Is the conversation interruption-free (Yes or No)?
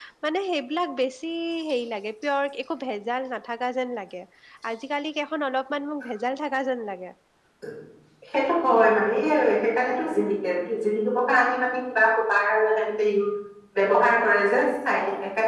Yes